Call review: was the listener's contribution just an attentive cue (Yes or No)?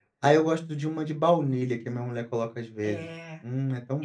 No